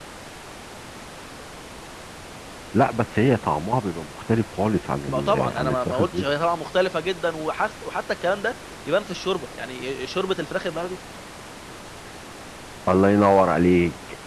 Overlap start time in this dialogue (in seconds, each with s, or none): 5.1 s